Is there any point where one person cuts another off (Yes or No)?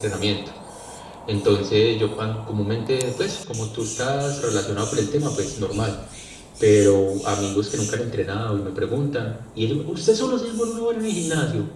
No